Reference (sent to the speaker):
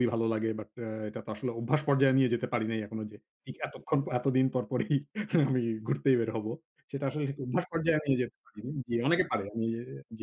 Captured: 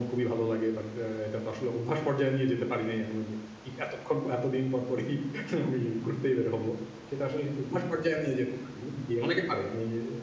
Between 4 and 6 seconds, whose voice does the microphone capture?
echo only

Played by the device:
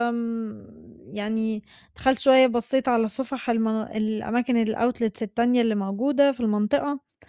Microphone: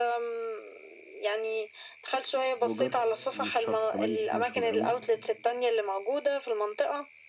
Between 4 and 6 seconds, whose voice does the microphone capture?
both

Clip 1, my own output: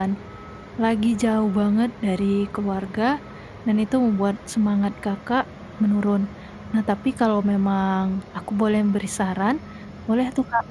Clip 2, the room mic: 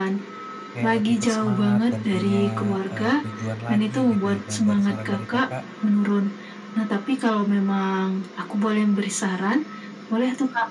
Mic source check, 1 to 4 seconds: both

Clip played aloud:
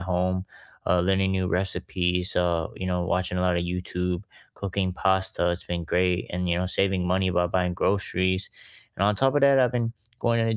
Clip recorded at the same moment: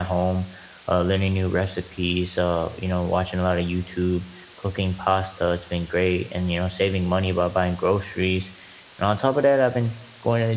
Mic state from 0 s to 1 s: echo only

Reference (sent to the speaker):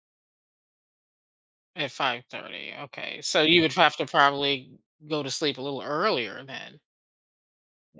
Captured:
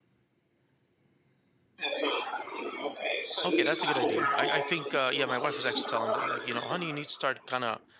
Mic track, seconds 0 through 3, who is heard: echo only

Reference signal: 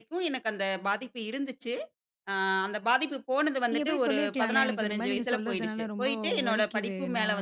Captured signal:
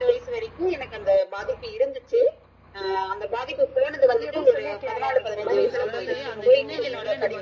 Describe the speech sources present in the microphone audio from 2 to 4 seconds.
echo only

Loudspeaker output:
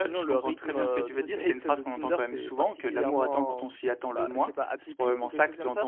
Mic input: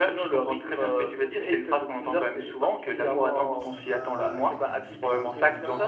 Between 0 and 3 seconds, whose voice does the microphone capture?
echo only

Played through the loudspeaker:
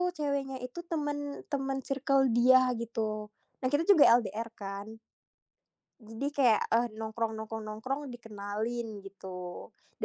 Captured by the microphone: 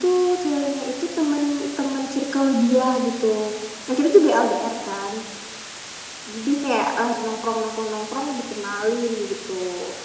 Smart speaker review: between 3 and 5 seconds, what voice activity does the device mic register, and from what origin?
echo only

